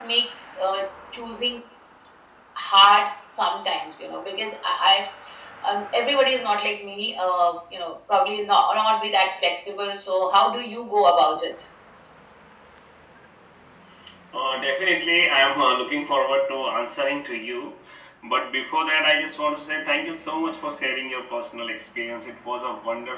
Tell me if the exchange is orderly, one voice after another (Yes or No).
Yes